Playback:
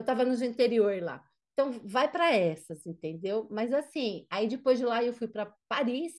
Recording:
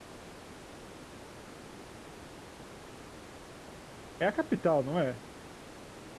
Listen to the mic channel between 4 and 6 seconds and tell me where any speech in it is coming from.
user only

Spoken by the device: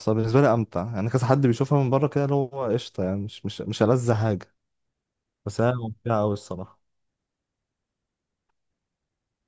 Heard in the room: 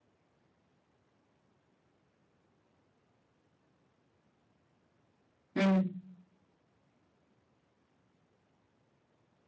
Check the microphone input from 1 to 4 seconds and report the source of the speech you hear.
neither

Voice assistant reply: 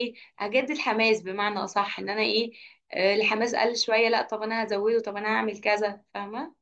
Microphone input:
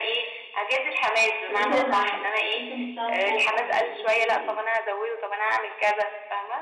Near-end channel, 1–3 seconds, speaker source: both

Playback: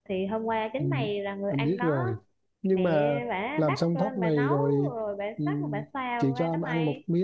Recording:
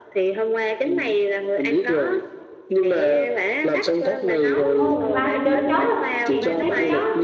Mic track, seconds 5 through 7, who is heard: both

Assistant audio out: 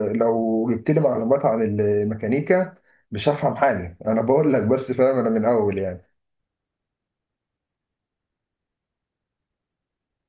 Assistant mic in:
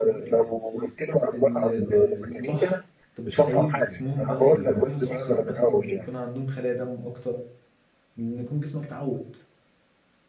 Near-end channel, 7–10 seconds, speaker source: user only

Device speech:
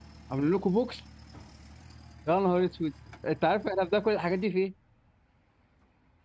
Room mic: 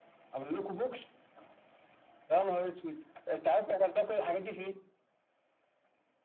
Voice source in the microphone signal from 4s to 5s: echo only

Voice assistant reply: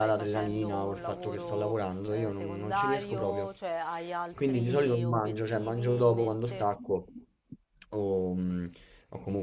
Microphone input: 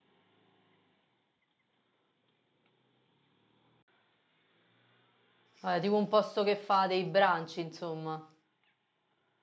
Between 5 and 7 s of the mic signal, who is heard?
user only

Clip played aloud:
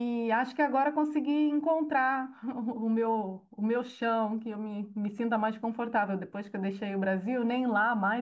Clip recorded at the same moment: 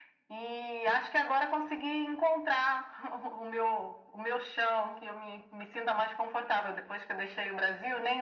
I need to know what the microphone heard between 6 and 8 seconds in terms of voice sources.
echo only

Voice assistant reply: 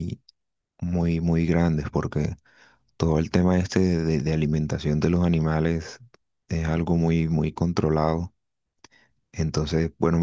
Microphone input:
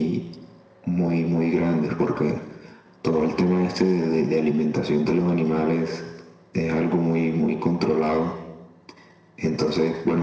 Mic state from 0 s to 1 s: echo only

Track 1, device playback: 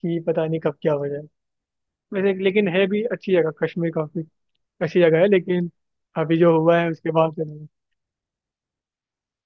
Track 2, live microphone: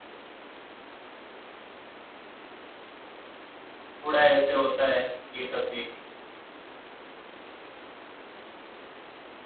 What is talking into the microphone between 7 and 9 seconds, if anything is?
neither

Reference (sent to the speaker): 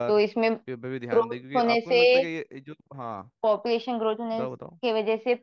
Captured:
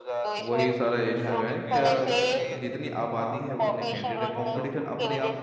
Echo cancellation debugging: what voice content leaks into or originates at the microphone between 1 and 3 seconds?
both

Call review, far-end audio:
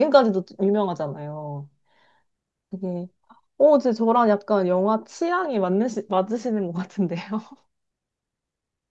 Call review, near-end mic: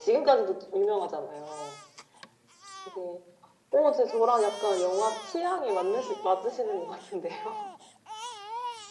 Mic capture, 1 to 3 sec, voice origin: echo only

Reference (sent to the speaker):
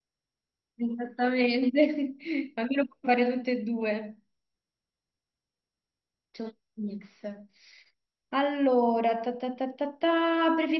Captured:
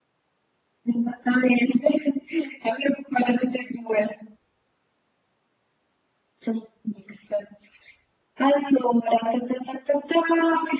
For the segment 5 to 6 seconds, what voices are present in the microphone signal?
neither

